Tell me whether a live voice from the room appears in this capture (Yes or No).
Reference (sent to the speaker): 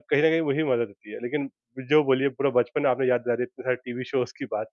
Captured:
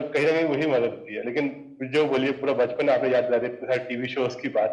No